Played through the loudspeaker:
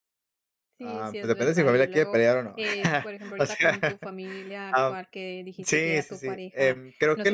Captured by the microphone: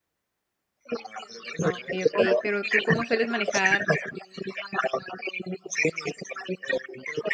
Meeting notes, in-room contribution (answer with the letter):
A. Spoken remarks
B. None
A